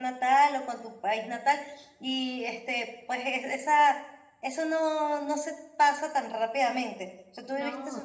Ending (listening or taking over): listening